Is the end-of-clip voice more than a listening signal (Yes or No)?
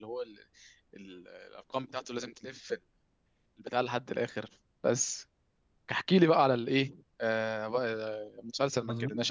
Yes